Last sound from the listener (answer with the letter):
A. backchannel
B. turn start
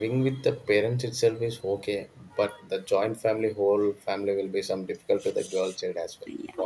B